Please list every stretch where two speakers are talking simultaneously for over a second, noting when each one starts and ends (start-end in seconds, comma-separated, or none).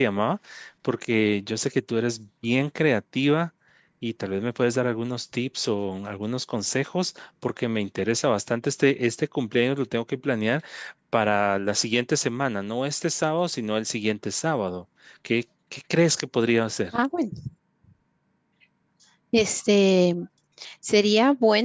none